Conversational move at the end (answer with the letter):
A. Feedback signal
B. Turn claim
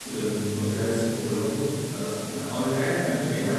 A